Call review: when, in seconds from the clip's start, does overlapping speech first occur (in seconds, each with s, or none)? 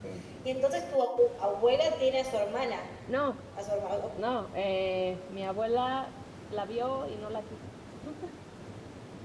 none